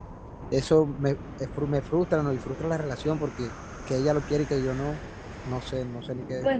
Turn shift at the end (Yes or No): Yes